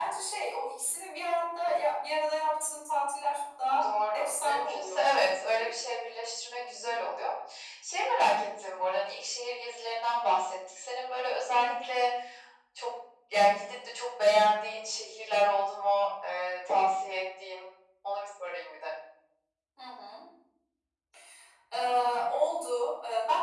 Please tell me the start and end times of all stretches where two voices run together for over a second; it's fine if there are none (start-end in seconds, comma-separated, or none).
3.8-5.0